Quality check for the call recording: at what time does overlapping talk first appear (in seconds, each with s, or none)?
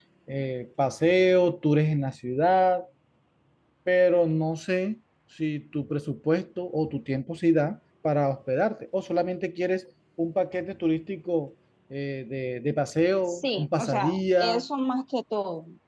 13.3 s